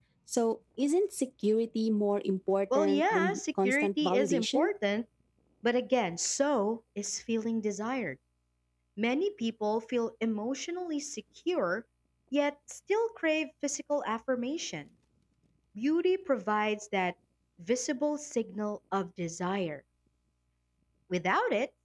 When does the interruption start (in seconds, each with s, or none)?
2.7 s